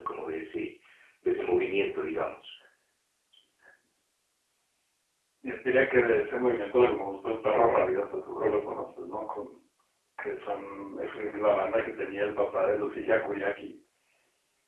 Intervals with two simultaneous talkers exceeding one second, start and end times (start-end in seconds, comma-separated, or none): none